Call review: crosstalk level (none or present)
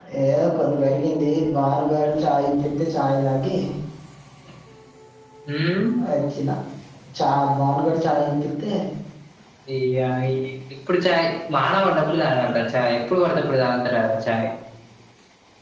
none